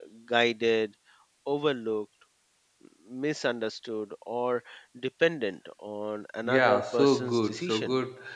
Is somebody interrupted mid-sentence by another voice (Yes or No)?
Yes